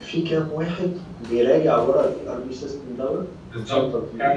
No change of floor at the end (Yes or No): No